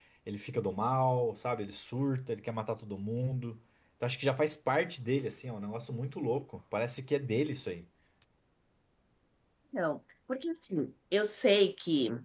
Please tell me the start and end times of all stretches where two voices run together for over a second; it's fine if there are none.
none

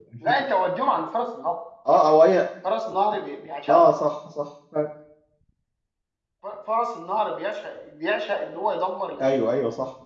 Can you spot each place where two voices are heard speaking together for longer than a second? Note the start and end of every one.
none

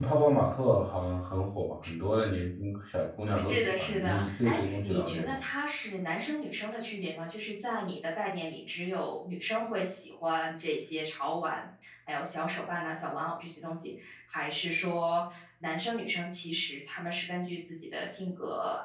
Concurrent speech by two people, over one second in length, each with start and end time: 3.5-5.4

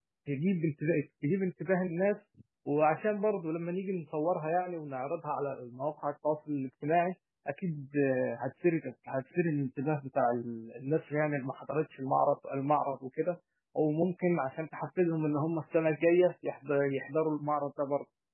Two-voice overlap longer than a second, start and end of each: none

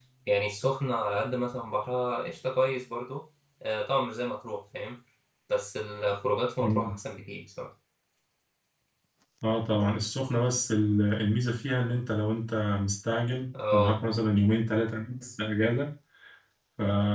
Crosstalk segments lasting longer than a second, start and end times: none

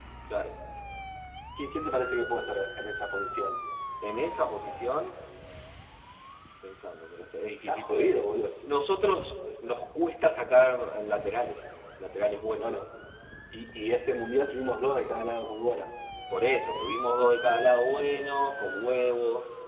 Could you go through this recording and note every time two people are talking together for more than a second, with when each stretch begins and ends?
none

